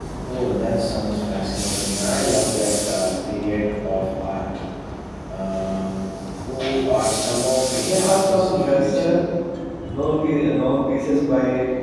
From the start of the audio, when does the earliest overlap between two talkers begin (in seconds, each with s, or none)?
7.8 s